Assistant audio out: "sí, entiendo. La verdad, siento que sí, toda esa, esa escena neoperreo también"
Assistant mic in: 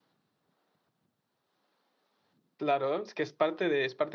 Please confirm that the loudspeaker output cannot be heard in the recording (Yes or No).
Yes